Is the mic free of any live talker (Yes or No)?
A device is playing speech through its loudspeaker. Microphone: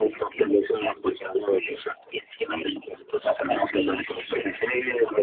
Yes